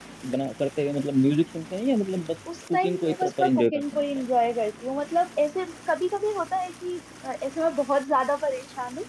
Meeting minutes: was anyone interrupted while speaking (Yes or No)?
Yes